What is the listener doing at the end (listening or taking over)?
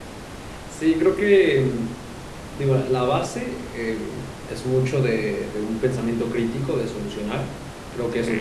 listening